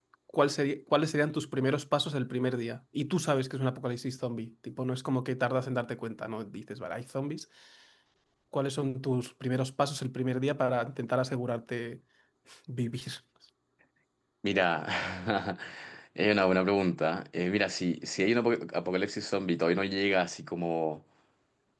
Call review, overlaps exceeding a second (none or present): none